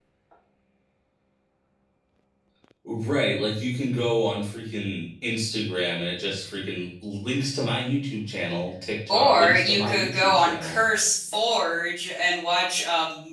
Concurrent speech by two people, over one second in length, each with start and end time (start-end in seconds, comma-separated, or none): 9.1-10.8